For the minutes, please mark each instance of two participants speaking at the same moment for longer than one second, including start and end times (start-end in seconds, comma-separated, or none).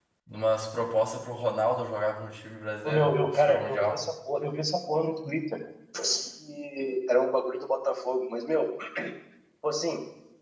2.8-4.0